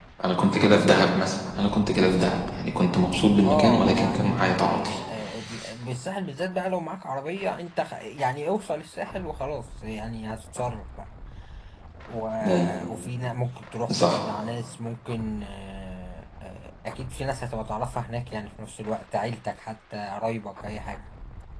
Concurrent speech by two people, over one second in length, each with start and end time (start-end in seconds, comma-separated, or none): 3.4-5.0